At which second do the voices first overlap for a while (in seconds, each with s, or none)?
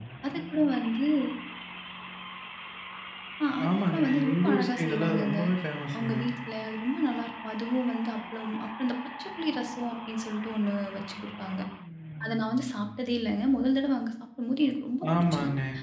3.7 s